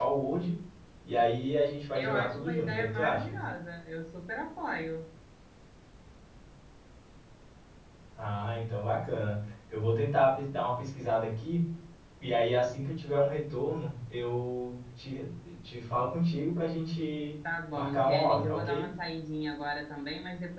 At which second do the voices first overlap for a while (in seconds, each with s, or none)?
1.9 s